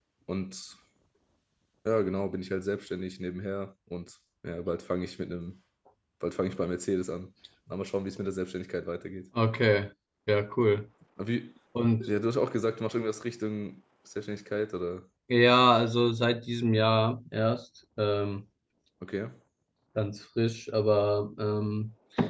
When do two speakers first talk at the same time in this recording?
none

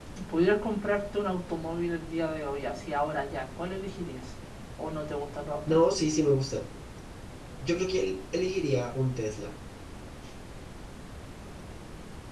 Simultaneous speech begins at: none

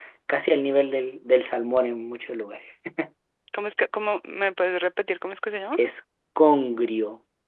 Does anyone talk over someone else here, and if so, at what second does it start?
none

